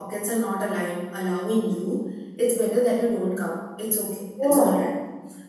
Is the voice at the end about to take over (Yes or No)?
No